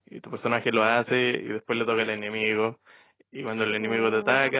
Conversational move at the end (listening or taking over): listening